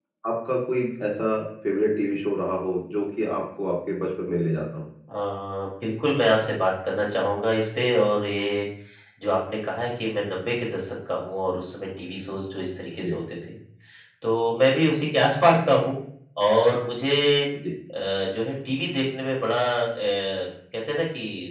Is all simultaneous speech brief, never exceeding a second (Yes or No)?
Yes